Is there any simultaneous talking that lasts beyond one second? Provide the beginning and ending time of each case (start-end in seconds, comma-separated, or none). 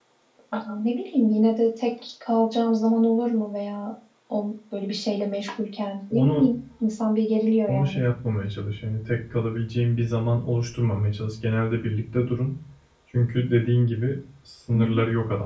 none